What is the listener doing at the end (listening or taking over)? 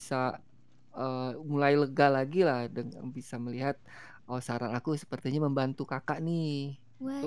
taking over